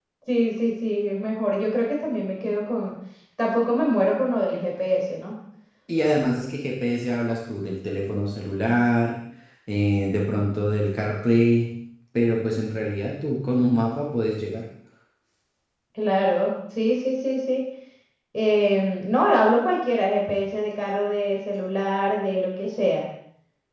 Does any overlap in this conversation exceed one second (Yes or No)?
No